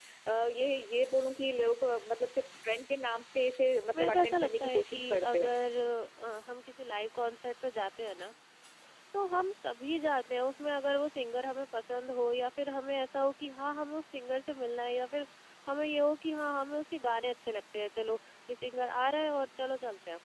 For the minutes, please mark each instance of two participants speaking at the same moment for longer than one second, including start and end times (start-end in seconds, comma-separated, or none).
3.9-5.5